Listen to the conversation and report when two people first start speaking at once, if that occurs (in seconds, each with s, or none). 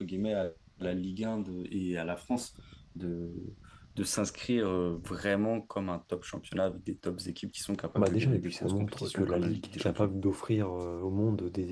8.0 s